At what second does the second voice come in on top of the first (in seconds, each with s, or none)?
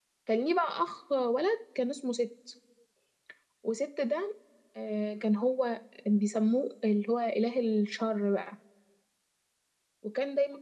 none